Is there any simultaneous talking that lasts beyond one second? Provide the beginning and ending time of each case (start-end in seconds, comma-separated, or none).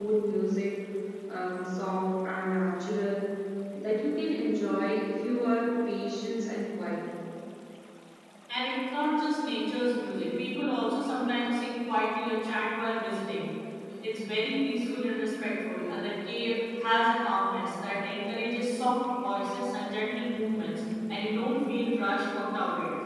none